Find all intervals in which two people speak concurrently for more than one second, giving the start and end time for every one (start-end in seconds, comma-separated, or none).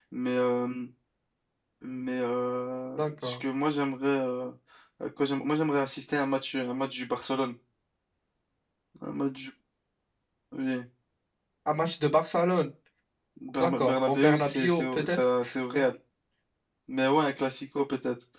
13.6-15.2